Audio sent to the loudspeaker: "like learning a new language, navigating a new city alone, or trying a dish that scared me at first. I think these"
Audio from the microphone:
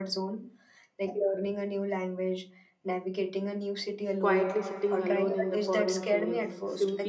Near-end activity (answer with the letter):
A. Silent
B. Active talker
B